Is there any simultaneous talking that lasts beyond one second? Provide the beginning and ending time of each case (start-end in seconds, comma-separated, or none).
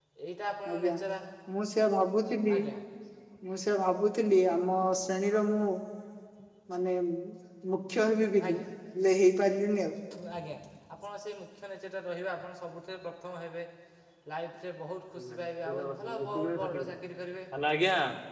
15.7-16.9